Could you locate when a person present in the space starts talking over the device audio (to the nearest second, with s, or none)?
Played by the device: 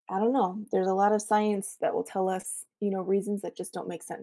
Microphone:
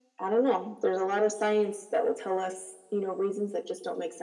none